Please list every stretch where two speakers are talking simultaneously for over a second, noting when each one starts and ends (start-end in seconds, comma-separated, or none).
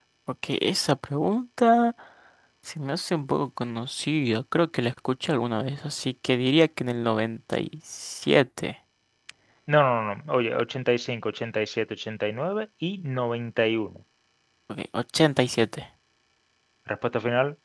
none